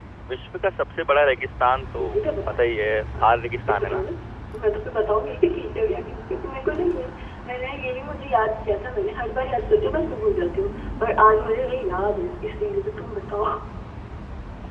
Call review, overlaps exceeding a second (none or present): none